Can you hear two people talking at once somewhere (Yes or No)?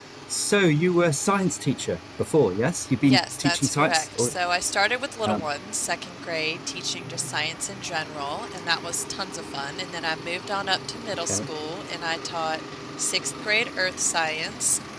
Yes